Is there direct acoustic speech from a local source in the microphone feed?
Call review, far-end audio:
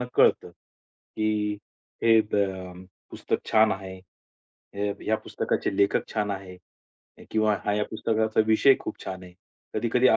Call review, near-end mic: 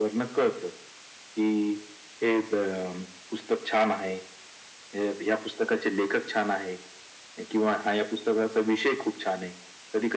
No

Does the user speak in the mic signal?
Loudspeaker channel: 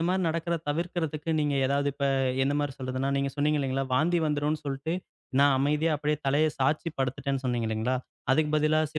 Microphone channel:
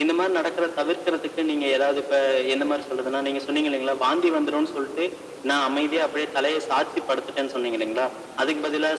No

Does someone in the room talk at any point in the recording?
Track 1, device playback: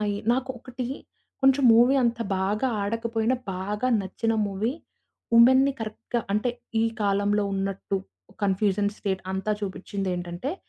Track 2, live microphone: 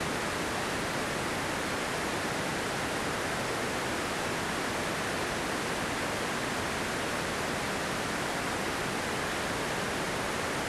No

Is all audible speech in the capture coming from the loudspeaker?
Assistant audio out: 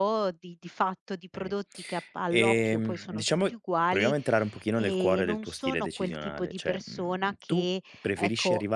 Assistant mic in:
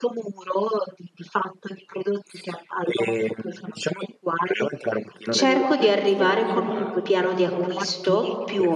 No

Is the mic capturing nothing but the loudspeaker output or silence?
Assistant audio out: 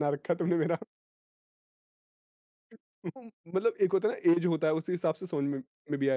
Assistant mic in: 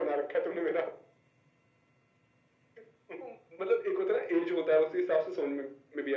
Yes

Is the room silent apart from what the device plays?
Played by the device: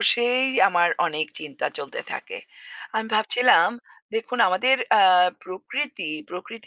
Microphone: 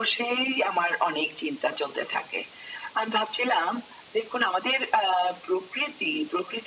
Yes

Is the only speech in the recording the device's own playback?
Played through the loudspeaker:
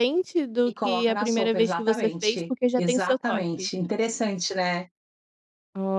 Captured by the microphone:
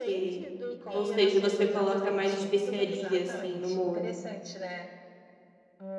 No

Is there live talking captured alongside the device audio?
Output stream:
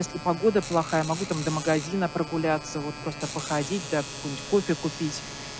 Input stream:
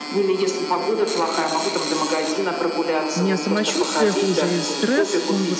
Yes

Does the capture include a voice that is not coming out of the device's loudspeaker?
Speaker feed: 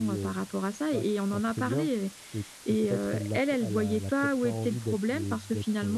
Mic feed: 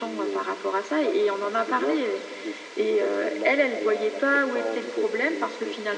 No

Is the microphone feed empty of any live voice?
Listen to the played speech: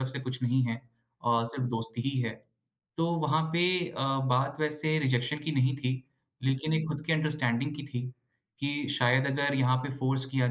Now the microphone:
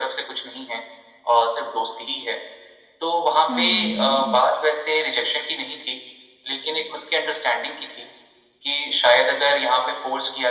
No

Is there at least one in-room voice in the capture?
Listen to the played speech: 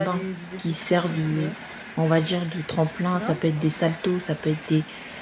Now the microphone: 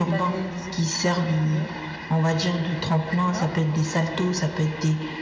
No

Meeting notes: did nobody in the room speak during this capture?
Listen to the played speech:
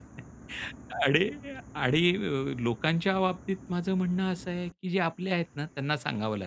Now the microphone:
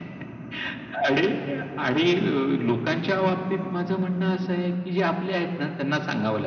Yes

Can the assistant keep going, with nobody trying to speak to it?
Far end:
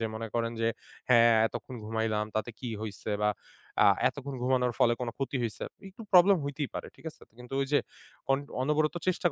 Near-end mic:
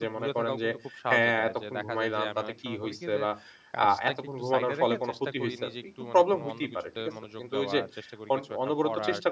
No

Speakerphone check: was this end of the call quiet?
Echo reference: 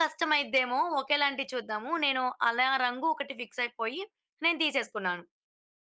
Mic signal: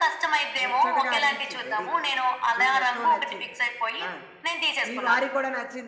No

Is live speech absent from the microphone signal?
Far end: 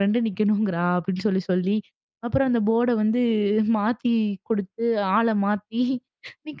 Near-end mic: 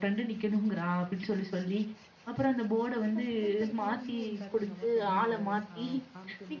No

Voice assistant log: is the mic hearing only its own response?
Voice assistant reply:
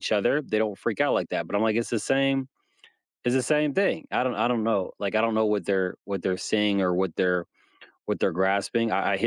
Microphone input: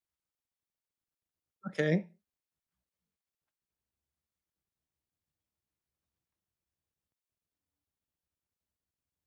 No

